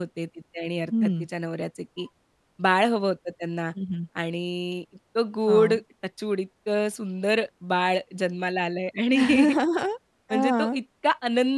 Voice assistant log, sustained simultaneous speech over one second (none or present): none